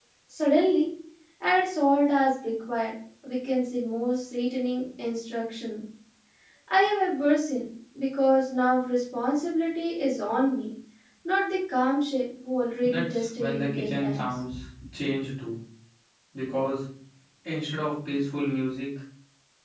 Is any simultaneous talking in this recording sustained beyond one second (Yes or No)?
Yes